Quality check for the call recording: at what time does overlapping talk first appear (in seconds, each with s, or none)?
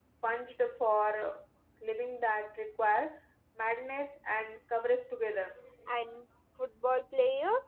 none